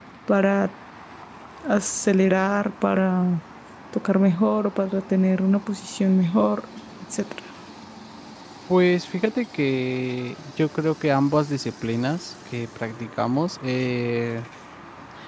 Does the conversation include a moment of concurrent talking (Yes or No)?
No